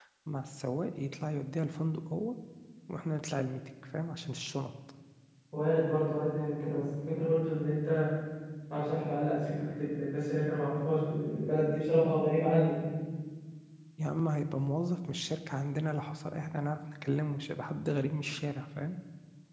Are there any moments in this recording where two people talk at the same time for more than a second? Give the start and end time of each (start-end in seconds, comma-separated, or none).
none